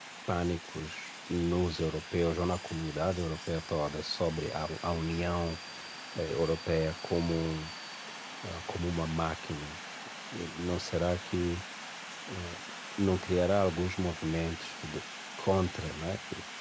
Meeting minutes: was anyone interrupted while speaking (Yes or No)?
No